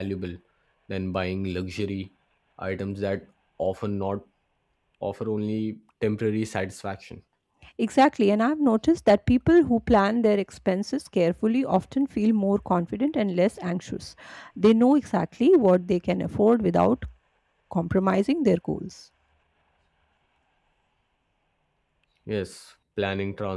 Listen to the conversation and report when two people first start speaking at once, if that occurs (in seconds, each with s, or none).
none